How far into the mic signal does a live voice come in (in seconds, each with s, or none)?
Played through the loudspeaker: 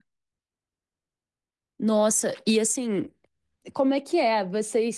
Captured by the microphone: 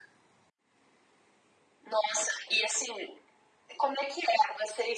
none